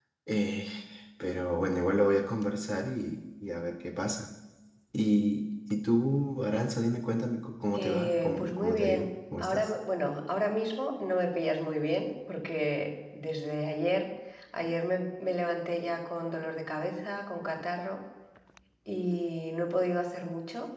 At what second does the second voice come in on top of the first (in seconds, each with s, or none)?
7.7 s